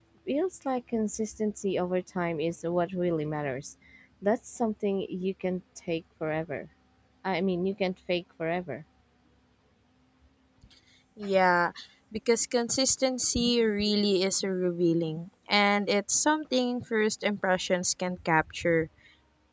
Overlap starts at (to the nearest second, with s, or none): none